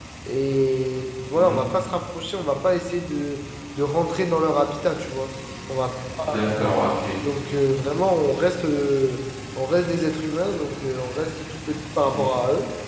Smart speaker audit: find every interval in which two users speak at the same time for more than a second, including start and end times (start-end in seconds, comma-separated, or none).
none